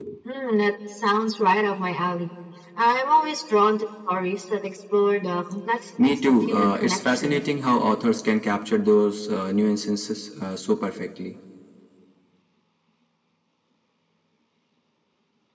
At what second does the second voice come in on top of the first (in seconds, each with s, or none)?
6.0 s